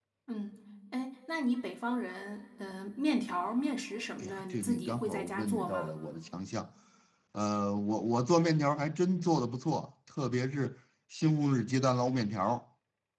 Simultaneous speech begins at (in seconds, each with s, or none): 4.2 s